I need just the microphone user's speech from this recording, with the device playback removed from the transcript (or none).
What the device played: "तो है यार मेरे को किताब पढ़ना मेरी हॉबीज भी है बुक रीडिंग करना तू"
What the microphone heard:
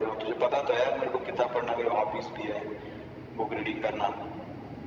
none